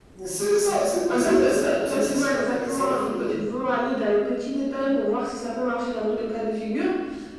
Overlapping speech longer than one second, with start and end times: 1.1-3.4

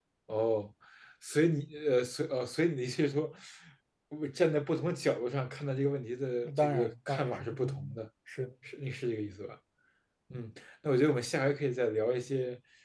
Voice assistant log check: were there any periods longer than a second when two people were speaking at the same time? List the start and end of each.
6.6-8.0

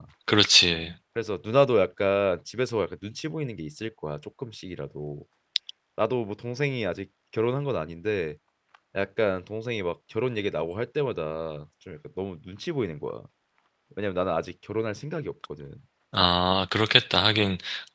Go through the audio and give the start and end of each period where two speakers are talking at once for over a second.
none

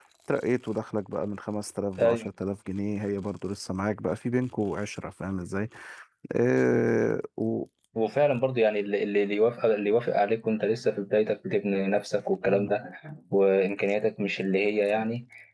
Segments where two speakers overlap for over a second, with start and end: none

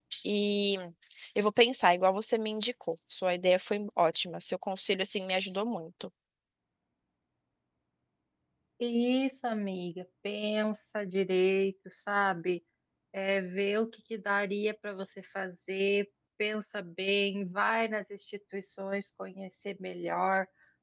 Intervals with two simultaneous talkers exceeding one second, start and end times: none

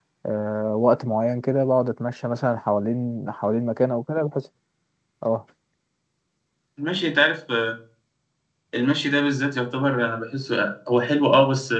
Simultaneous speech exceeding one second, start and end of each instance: none

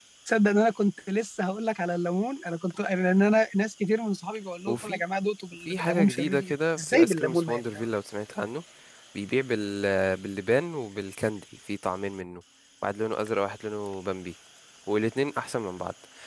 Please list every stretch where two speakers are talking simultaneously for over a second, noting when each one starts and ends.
5.7-7.6

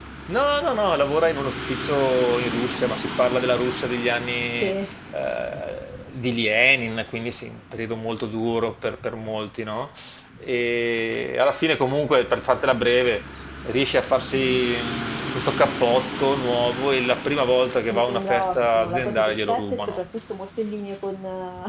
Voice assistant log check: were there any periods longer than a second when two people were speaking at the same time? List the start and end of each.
17.9-20.0

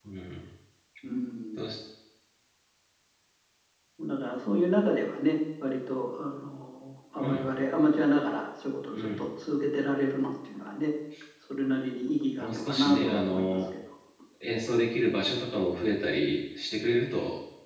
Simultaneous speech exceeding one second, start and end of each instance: 12.4-13.7

